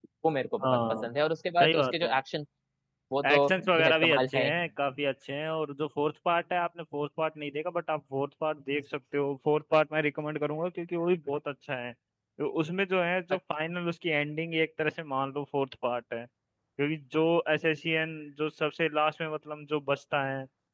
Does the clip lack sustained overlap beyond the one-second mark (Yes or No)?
No